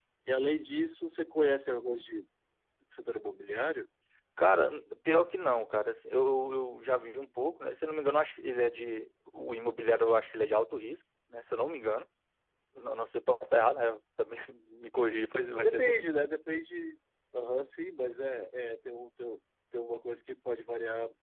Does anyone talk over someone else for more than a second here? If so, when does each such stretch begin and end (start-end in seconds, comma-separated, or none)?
none